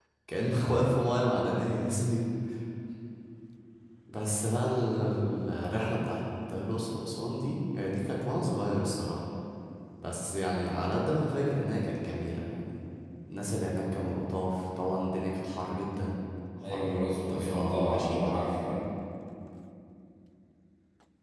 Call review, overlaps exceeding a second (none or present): present